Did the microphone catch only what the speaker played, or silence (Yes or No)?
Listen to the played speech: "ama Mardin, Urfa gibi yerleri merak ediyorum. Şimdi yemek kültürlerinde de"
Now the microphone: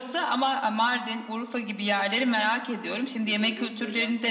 No